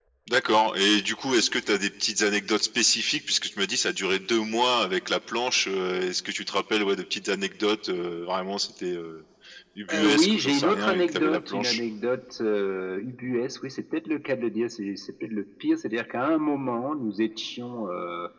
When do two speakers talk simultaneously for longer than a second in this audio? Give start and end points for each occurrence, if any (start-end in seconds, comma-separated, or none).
9.9-11.8